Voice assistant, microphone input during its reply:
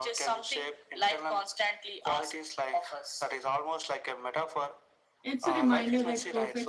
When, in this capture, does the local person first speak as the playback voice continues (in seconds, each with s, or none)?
5.2 s